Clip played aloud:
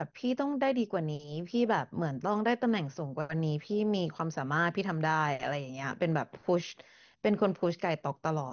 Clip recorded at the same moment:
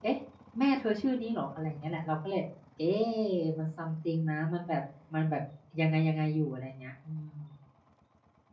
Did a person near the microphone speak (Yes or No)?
Yes